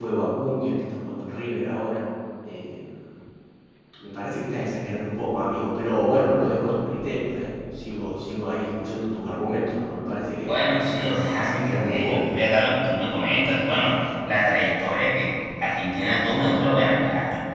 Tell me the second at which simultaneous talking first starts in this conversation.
10.4 s

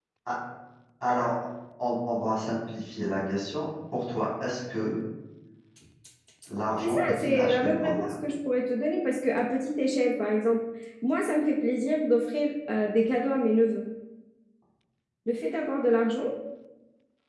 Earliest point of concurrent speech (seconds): 6.8 s

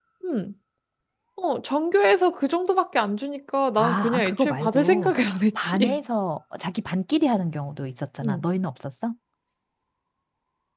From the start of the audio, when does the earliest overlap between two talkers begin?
3.8 s

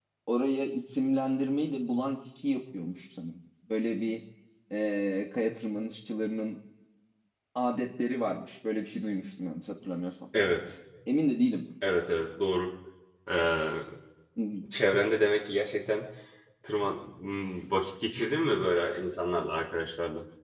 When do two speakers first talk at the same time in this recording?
none

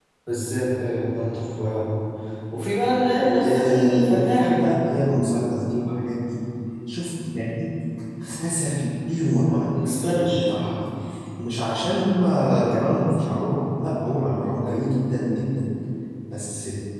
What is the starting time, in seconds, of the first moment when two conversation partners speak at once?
3.4 s

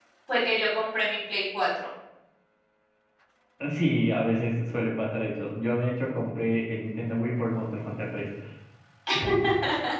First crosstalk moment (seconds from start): none

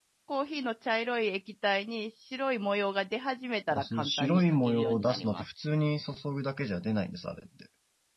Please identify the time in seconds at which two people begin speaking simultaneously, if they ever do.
3.7 s

